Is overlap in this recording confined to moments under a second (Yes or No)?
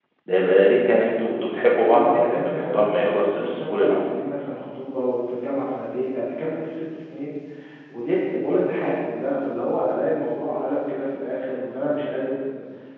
No